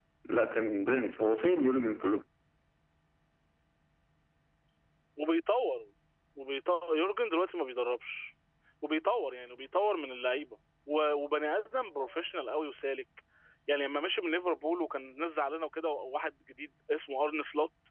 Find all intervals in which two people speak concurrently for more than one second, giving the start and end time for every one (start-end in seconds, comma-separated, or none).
none